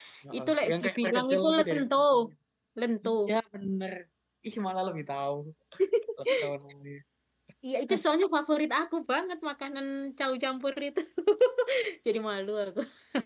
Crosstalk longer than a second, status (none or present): present